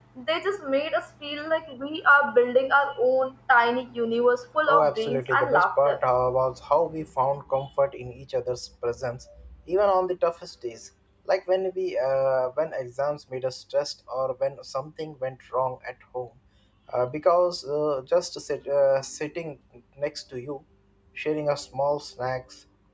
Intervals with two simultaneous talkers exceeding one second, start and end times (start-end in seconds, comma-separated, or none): 4.7-6.0